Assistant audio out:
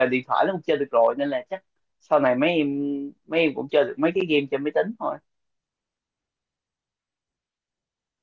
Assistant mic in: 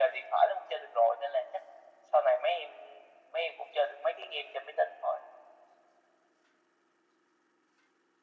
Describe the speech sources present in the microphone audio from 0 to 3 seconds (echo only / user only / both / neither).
echo only